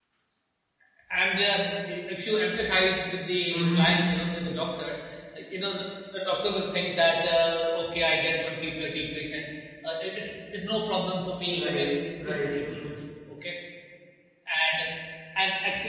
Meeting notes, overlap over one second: present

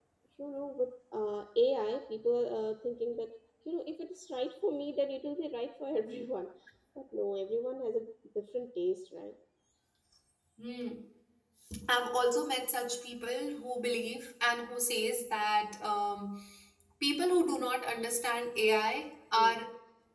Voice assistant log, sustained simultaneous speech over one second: none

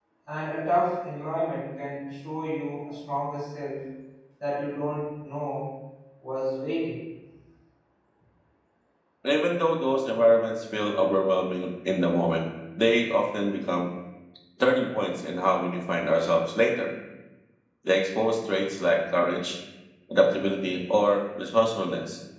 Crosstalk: none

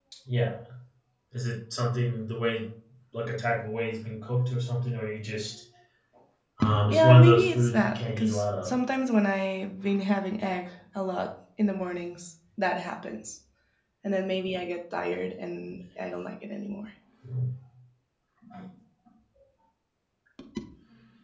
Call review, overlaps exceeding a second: present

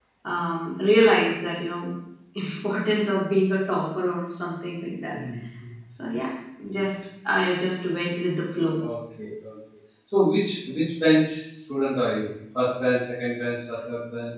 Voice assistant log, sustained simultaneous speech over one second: none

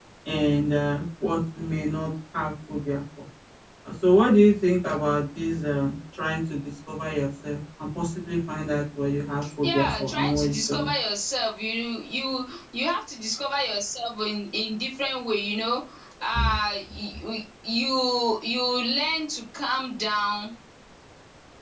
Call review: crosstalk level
present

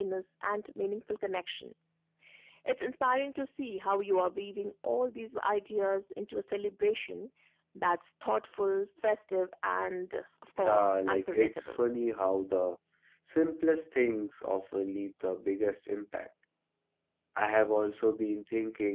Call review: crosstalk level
present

